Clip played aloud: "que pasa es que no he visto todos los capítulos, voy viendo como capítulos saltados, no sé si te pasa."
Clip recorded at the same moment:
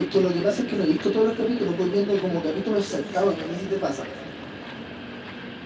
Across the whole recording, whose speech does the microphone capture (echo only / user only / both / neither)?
echo only